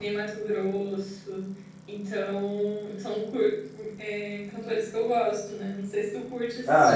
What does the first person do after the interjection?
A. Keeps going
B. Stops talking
B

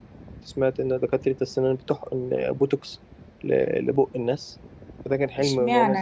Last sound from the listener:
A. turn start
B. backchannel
A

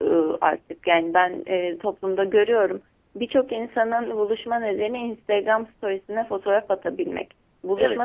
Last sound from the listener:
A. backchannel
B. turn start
A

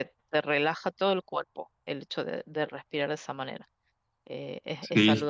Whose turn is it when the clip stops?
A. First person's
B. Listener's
B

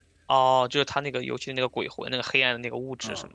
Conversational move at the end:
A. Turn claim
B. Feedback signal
A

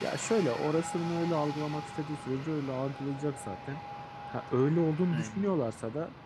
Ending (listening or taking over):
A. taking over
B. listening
B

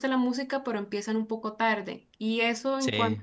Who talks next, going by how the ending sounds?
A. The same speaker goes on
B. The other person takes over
A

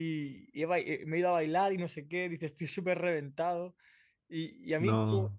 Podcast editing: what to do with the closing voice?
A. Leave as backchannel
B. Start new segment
A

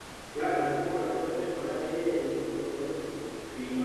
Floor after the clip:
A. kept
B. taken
A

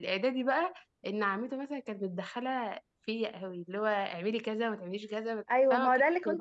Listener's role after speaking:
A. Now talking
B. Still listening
A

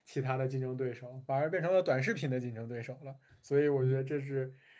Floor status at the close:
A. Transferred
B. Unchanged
B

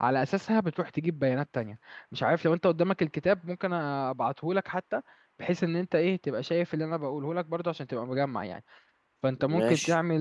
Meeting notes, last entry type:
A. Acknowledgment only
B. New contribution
A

